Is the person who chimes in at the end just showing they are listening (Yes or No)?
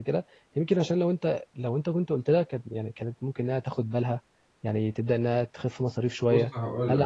No